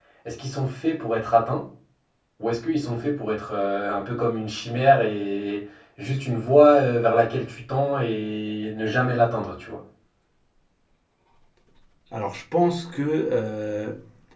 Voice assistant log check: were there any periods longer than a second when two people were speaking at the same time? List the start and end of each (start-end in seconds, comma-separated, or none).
none